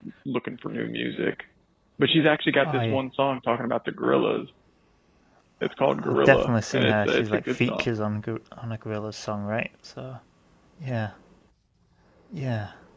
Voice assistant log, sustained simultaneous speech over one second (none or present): present